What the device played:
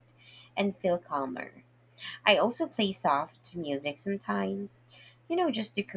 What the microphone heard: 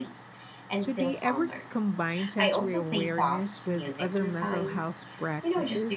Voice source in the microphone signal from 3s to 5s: both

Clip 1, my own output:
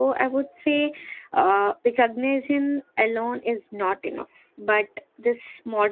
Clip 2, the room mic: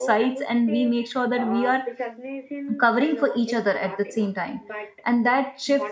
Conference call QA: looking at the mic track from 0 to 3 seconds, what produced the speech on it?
both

